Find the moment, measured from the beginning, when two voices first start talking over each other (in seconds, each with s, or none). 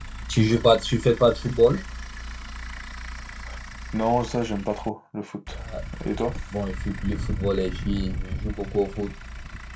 none